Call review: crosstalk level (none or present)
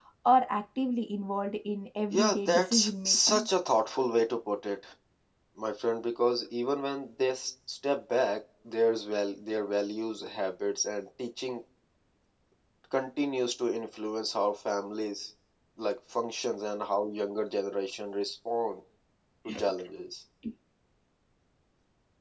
present